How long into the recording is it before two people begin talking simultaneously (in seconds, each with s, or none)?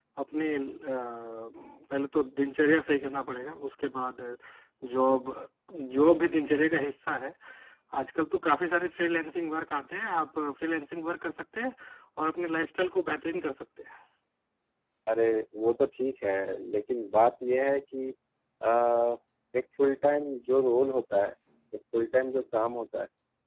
none